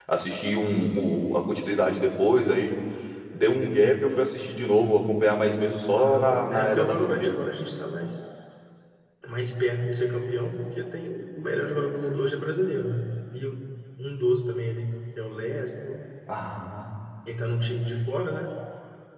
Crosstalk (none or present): present